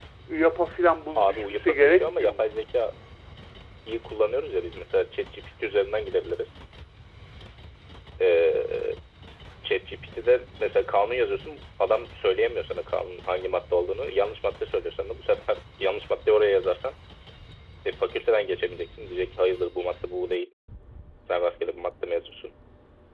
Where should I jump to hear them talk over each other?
1.2 s

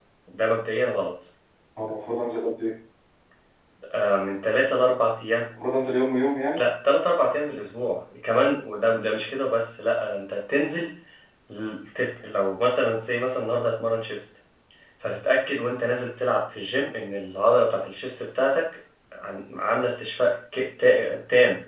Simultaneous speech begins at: none

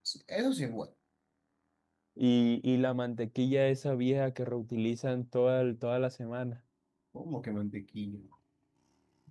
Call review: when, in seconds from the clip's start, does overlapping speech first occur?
none

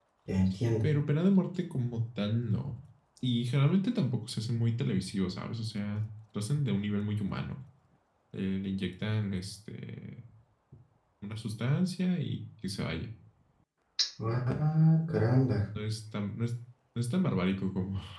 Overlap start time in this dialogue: none

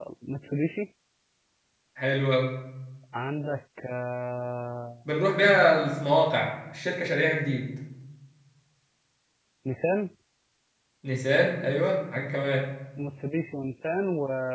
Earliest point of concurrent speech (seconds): none

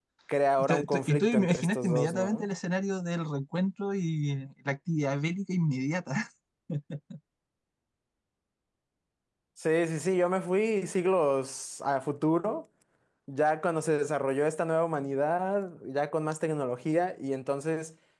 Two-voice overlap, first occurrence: 0.7 s

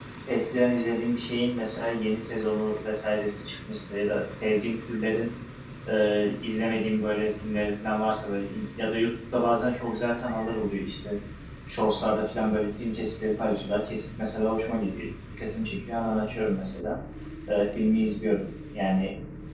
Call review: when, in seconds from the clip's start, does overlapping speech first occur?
none

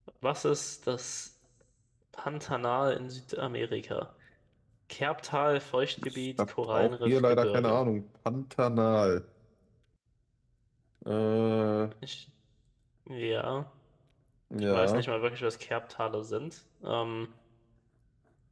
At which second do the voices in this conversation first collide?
6.1 s

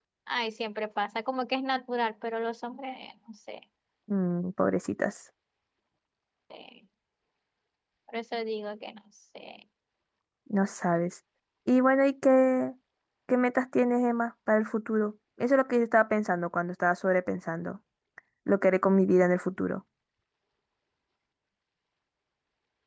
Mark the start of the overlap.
none

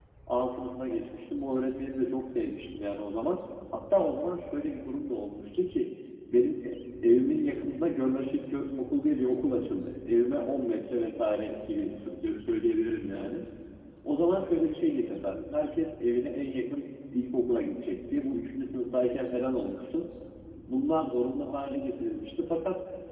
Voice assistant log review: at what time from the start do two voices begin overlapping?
none

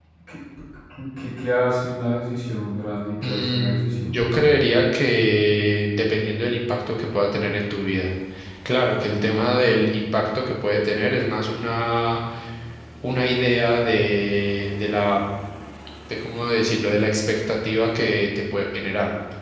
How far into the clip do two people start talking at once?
3.2 s

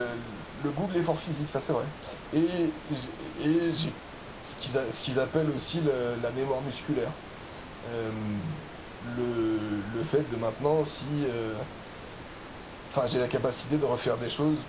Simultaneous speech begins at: none

